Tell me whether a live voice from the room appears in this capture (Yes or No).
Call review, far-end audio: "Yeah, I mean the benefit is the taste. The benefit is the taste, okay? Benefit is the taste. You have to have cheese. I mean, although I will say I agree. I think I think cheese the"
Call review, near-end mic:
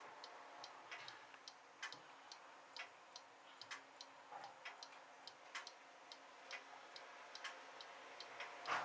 No